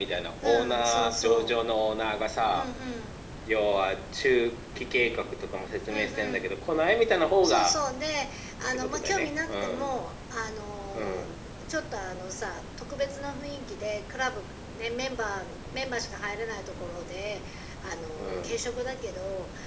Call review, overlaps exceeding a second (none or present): present